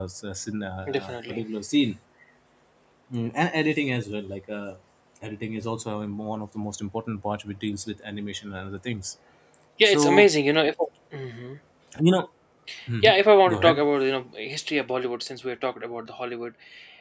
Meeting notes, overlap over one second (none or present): none